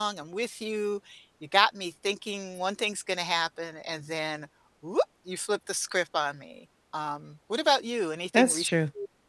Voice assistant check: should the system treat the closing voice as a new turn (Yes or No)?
Yes